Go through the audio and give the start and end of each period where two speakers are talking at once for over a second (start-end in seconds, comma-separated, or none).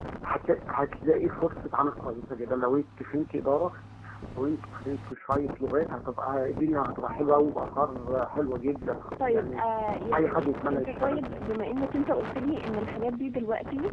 10.1-11.4